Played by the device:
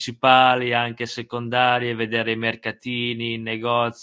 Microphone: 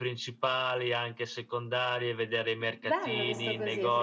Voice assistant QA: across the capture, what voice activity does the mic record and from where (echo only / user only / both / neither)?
both